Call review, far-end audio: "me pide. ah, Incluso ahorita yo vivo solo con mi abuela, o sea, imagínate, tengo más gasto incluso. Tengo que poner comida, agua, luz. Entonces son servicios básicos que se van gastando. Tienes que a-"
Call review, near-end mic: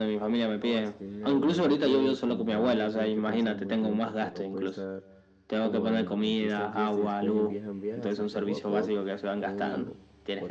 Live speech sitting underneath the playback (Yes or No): Yes